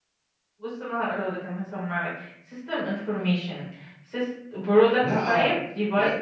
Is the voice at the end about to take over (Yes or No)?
Yes